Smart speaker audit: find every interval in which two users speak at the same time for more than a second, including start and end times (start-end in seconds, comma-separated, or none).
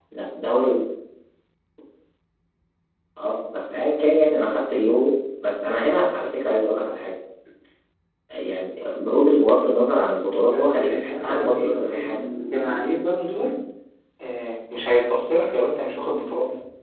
10.5-12.1